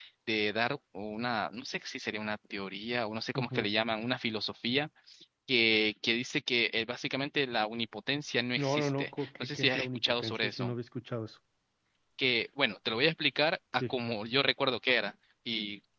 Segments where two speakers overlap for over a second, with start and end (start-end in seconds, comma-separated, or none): 8.6-10.7